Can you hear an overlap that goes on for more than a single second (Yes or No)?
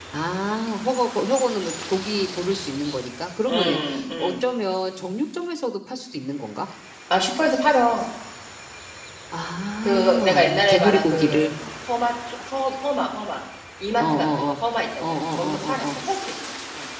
Yes